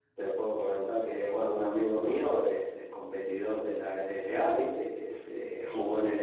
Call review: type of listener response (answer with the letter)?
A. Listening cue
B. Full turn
A